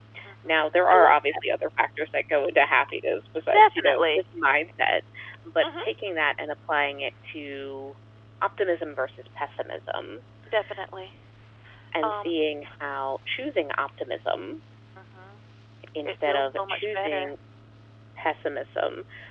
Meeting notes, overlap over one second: present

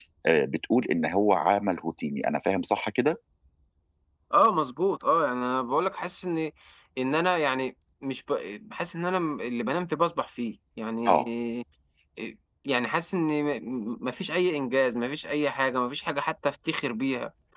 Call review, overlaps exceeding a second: none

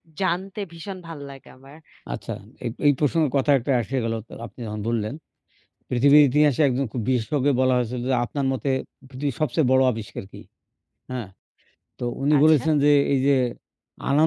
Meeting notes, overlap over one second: none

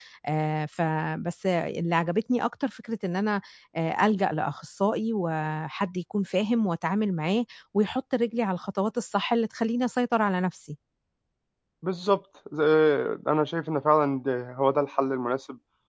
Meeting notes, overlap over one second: none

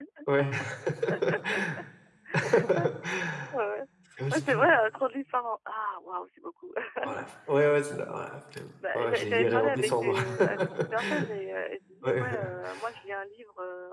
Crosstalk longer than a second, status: present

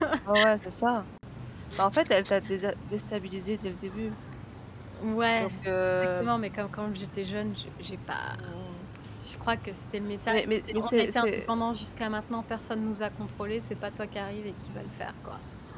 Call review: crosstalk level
present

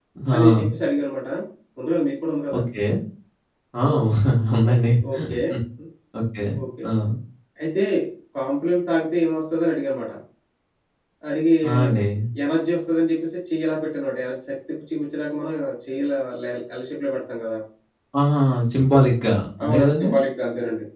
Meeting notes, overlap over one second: none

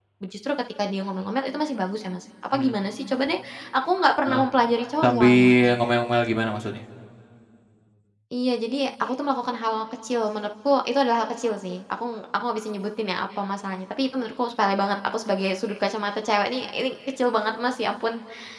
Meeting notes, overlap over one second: none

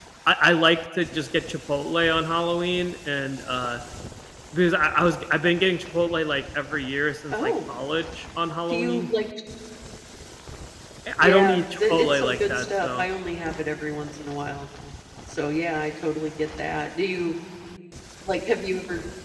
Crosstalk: present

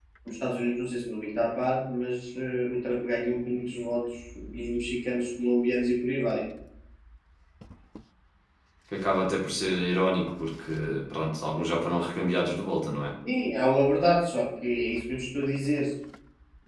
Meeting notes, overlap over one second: none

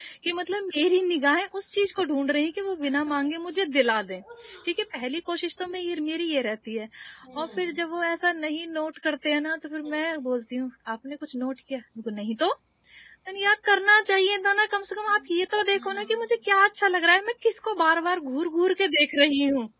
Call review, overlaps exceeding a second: none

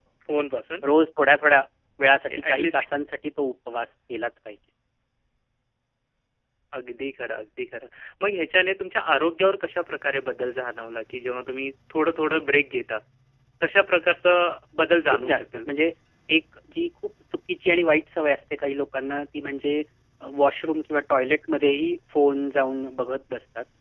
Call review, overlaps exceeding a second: none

